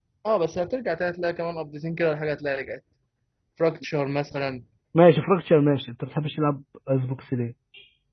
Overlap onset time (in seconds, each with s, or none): none